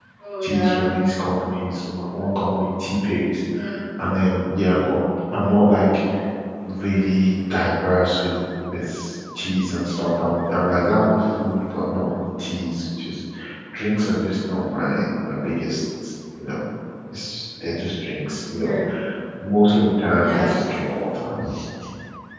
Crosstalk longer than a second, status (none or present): none